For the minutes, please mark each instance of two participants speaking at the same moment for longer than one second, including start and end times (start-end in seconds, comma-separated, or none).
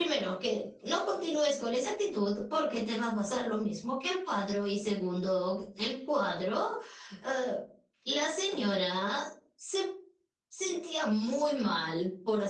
none